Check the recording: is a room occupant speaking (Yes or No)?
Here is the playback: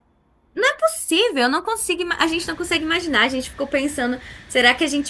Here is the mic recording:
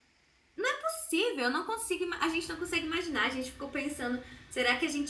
No